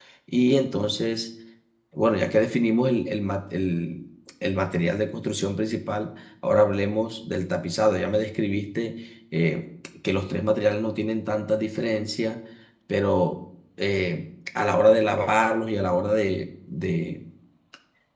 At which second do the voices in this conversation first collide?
none

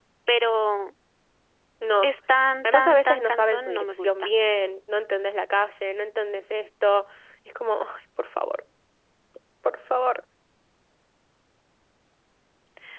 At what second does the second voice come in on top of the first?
3 s

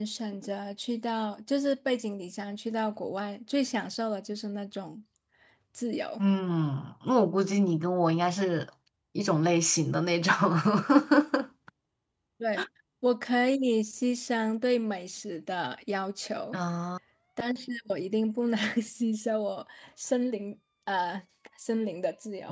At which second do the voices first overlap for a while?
none

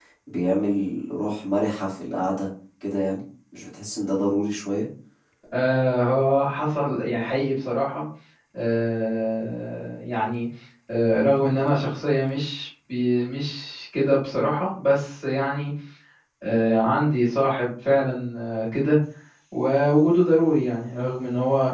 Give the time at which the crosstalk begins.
none

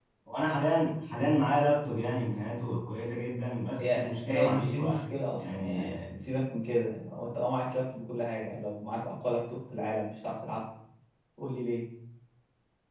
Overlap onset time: 4 s

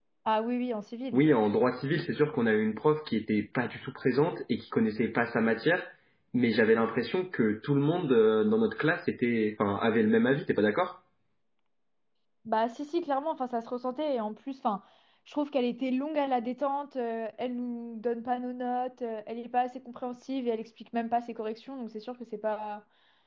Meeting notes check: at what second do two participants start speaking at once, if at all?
none

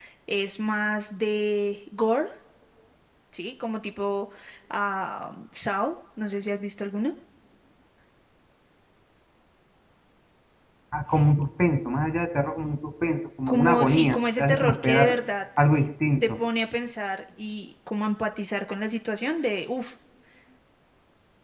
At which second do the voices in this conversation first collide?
13 s

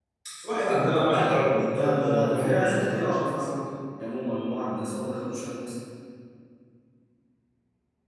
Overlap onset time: 1 s

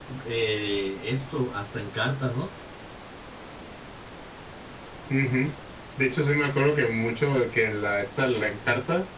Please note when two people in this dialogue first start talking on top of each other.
none

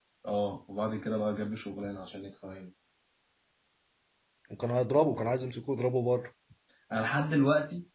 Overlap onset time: none

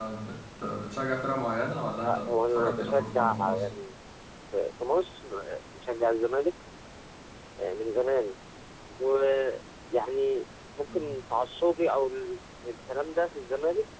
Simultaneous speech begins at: 2 s

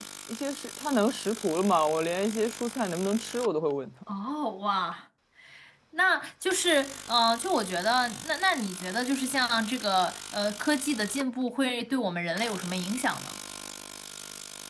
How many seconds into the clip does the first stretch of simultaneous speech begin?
none

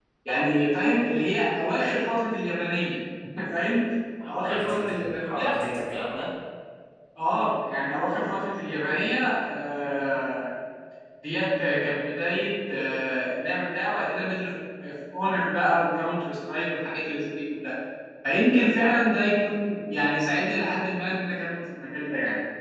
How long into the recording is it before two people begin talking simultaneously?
4 s

